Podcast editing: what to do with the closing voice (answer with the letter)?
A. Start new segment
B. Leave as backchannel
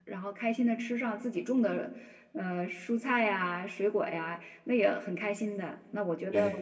B